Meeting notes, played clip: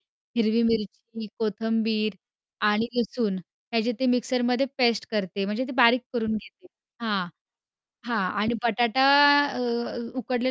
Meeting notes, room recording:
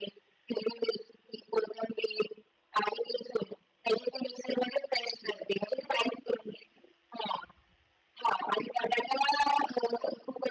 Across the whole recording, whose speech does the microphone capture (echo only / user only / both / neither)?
echo only